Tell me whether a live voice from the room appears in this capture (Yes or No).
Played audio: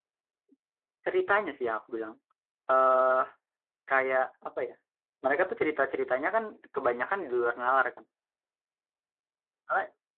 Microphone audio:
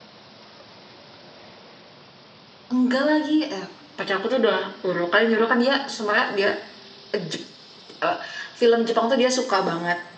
Yes